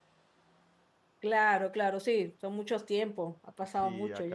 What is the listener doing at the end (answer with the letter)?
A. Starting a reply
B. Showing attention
A